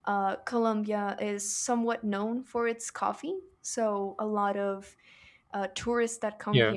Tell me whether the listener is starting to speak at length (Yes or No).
No